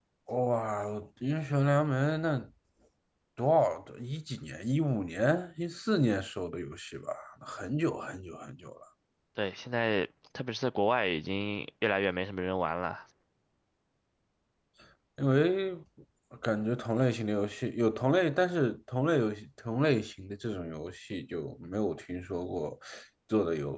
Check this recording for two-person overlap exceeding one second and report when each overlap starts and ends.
none

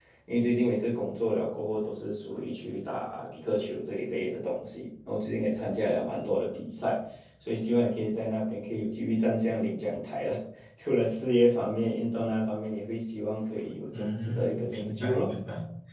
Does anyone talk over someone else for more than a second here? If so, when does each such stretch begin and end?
13.9-15.3

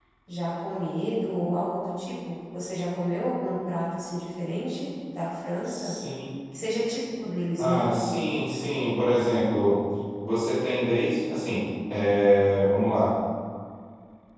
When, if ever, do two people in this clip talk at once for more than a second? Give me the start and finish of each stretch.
none

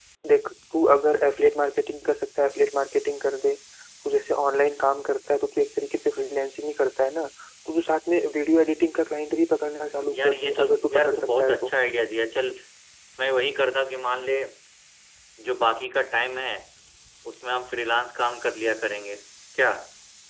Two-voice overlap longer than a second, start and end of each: 10.1-11.7

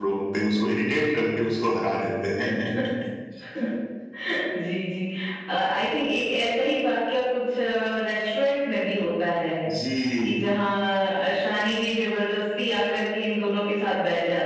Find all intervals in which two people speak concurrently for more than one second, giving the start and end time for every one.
none

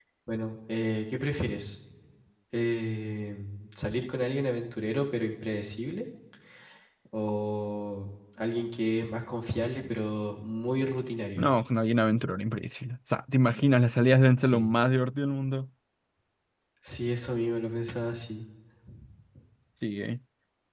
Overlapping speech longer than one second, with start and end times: none

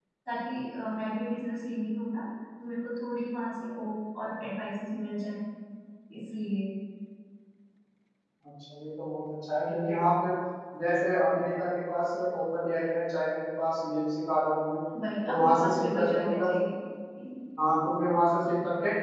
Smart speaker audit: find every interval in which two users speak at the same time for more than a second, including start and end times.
15.3-16.5

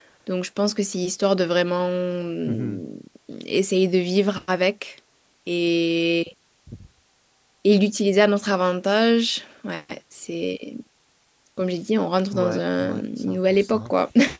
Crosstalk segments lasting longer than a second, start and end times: 12.3-13.9

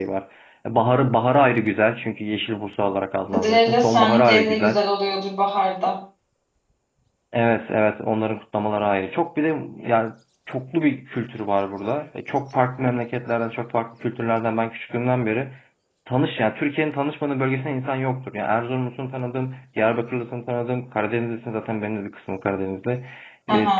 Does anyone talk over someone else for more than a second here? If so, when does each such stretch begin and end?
3.3-4.8

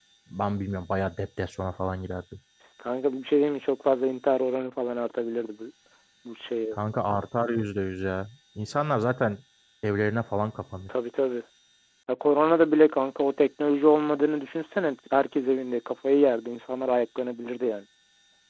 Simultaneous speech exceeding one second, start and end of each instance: none

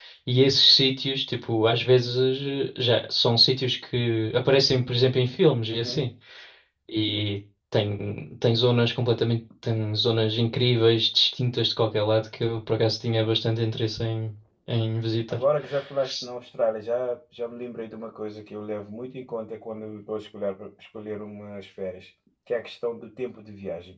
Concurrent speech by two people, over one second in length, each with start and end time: none

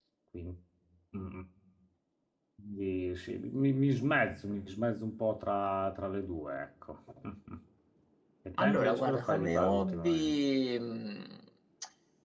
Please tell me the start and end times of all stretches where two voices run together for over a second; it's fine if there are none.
8.6-10.4

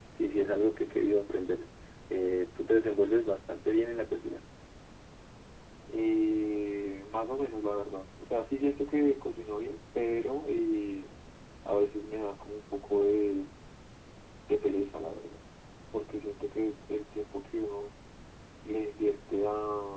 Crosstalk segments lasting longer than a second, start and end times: none

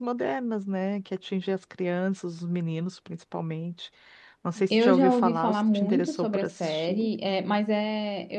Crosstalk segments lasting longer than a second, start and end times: 4.7-7.1

